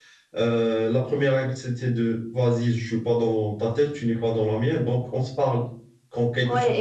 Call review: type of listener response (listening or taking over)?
taking over